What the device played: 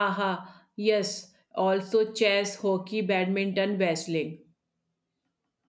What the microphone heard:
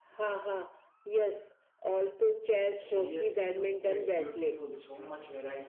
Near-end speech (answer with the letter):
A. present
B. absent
A